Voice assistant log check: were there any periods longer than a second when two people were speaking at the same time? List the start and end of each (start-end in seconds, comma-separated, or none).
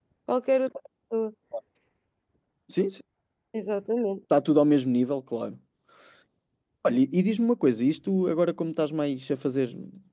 none